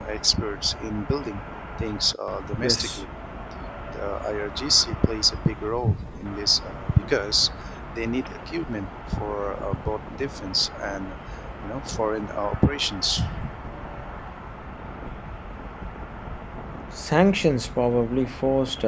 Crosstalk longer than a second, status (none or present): none